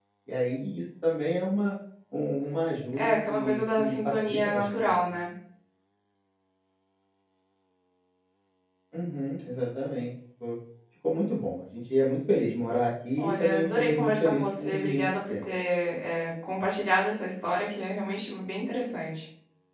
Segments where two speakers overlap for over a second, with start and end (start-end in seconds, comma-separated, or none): 2.9-5.2, 13.2-15.5